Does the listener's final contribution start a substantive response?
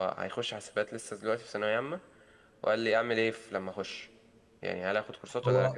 No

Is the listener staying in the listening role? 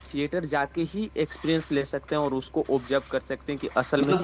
No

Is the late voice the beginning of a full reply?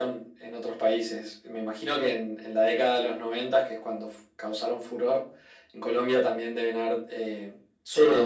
Yes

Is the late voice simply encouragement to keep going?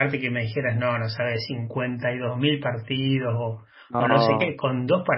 Yes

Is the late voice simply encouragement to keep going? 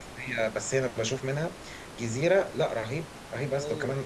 Yes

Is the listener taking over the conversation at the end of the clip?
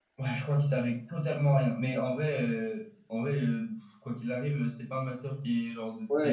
Yes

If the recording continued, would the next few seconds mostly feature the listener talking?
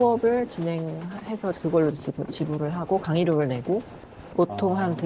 No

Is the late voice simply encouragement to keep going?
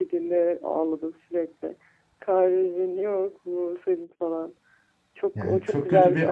No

